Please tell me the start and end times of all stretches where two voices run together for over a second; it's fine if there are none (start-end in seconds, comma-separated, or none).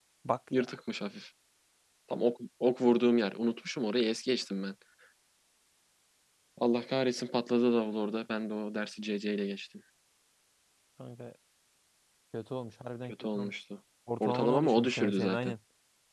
14.2-15.5